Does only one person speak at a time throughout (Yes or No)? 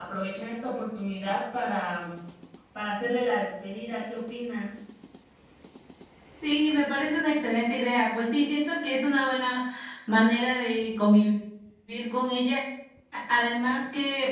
Yes